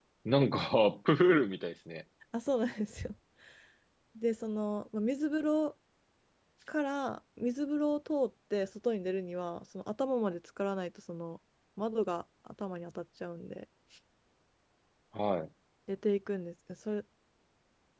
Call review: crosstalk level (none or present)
none